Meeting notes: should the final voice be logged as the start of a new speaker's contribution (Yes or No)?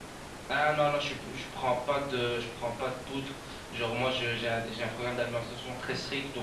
No